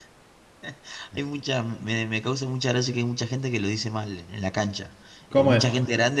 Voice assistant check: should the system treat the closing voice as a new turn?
No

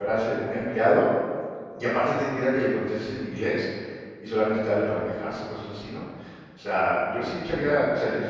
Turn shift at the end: No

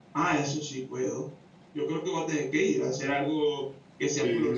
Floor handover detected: Yes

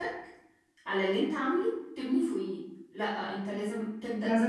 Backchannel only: Yes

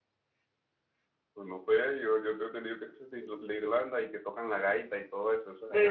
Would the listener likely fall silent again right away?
No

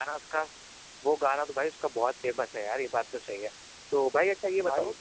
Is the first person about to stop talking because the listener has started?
No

